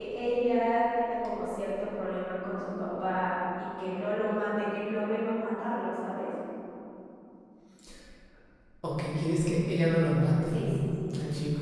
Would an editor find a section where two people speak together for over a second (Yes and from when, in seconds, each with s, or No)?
No